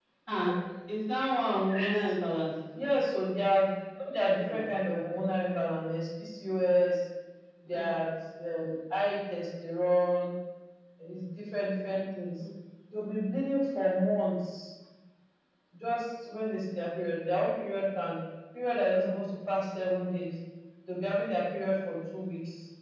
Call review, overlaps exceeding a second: none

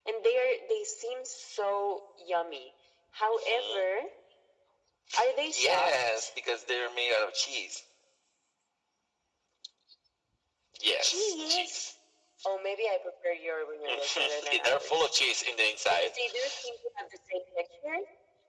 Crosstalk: present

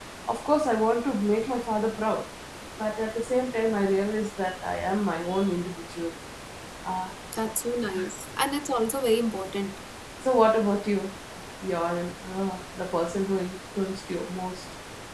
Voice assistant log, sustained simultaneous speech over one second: none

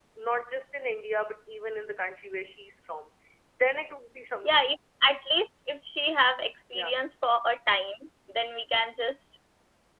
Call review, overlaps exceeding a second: none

